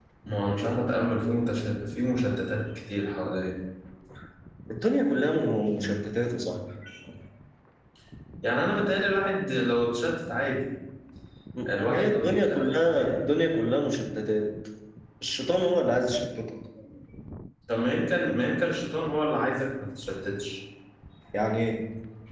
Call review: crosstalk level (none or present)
present